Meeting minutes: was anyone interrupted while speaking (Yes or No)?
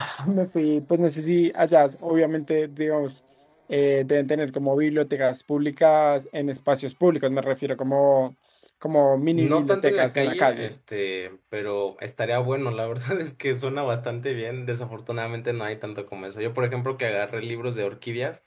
Yes